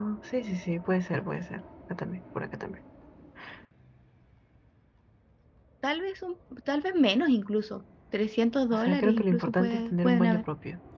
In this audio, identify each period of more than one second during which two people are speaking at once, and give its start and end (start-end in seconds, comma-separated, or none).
8.7-10.4